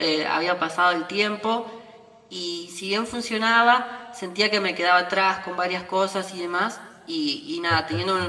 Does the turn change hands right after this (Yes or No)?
No